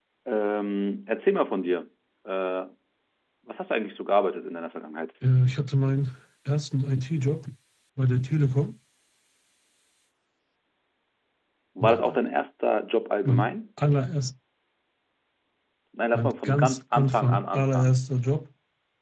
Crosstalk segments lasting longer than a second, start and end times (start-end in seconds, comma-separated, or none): 16.1-17.9